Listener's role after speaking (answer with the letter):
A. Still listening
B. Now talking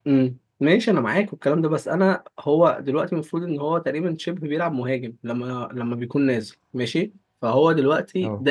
A